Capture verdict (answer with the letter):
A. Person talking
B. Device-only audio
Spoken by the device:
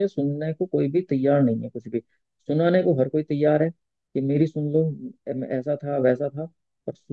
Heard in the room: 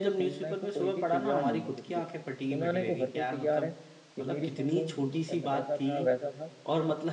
A